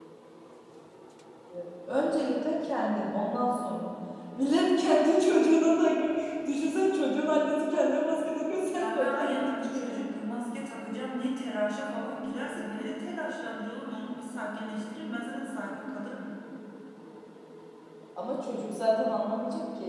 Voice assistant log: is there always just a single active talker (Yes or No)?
No